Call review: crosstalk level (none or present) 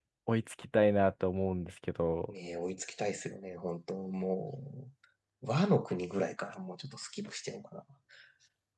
none